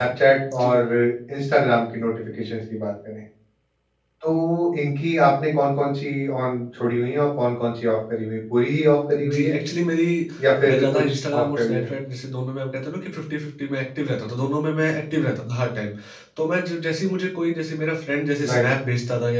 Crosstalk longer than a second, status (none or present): present